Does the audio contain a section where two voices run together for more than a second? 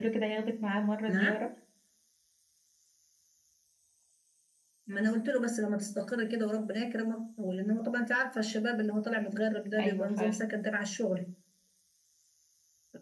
No

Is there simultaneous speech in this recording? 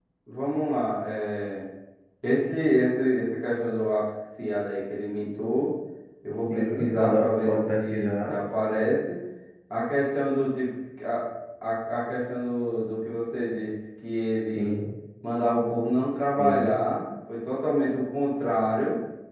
Yes, from 6.4 s

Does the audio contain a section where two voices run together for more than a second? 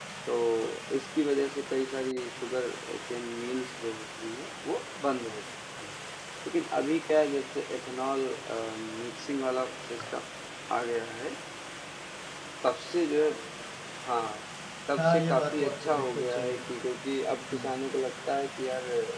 Yes, from 15.0 s

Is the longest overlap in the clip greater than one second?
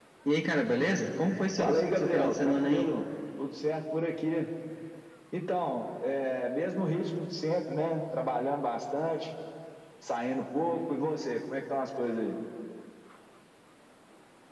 Yes, from 1.6 s

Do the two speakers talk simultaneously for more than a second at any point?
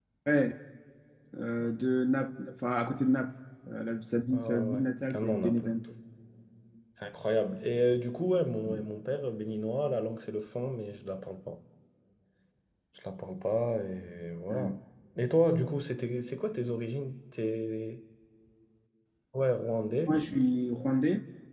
Yes, from 4.3 s

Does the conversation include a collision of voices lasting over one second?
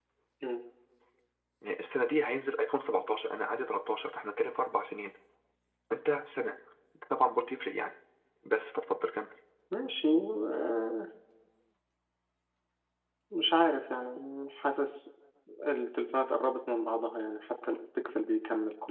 No

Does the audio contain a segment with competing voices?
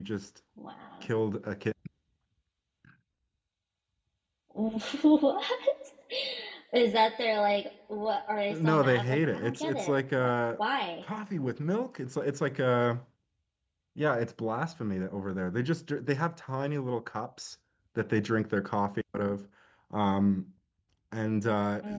Yes, from 8.5 s

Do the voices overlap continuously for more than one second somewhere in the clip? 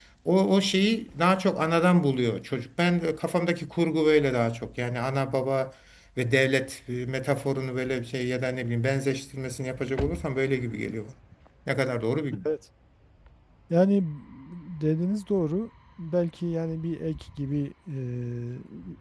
No

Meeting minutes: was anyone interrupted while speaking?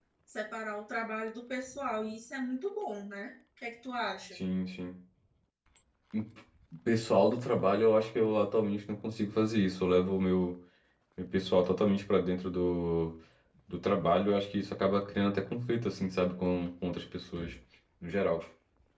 No

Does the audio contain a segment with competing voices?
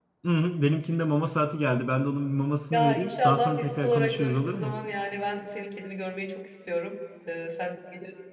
Yes, from 2.7 s

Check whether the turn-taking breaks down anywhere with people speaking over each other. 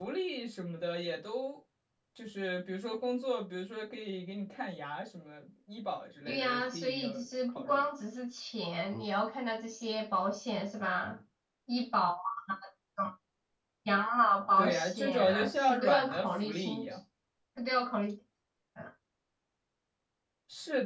Yes, from 6.3 s

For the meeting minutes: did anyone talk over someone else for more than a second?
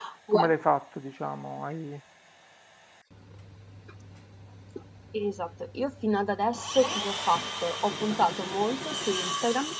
No

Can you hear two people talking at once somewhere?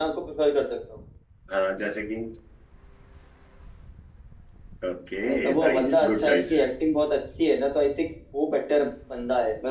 Yes, from 5.2 s

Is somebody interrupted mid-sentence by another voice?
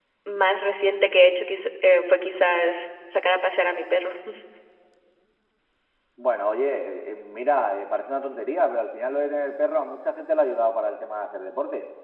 No

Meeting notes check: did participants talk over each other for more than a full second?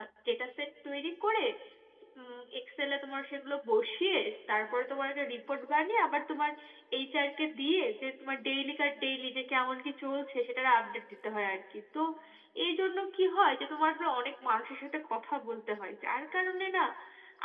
No

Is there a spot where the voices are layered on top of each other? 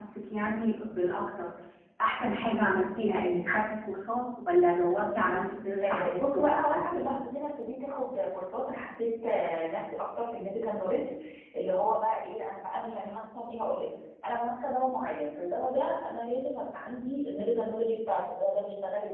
Yes, from 5.8 s

